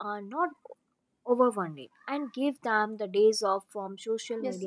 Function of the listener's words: taking over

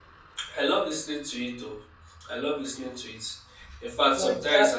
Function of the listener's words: listening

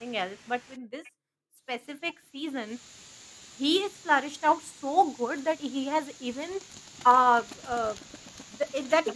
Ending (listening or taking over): listening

